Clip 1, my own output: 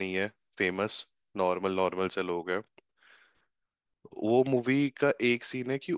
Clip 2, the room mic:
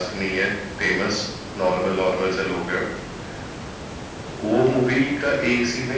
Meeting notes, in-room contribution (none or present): none